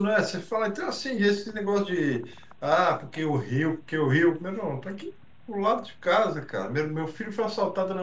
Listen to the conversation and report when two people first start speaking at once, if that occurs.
none

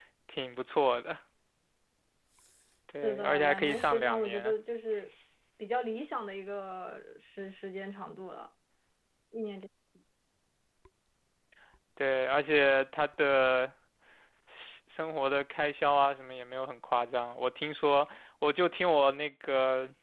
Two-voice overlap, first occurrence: 3 s

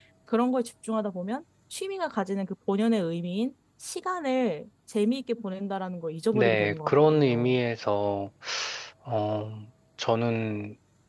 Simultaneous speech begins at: 6 s

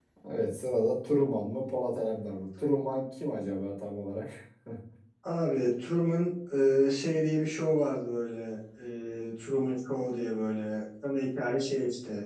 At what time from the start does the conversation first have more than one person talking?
none

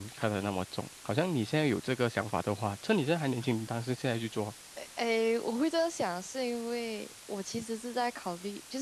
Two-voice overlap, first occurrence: none

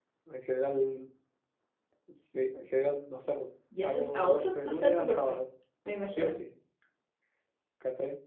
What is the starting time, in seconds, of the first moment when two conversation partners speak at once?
4 s

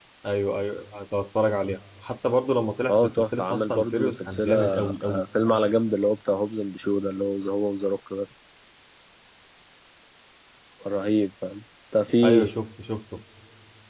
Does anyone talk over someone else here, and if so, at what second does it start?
3 s

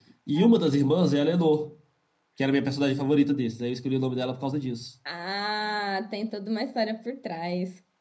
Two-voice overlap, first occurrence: none

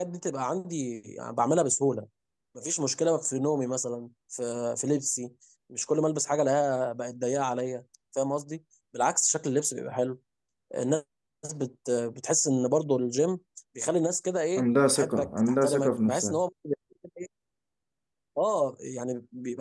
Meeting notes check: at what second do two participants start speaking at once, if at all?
15 s

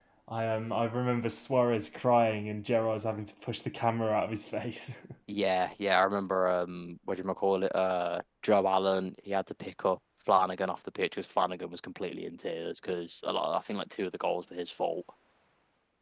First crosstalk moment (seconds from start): none

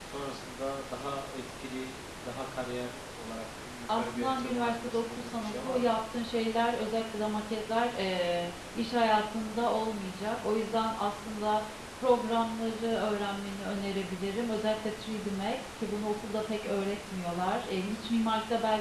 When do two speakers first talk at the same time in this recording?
4 s

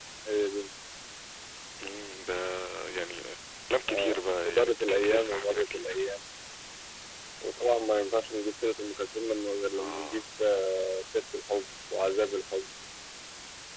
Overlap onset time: 4 s

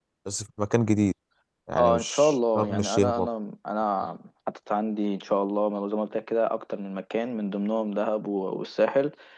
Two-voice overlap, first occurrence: 2 s

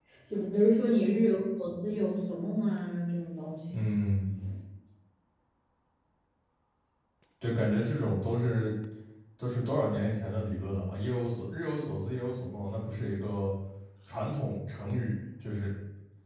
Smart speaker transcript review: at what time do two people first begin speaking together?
none

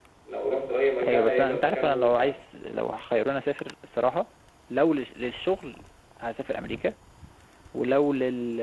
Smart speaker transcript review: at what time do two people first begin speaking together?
1 s

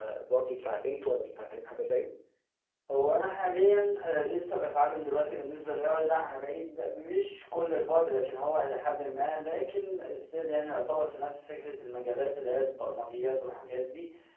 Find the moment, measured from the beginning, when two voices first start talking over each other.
none

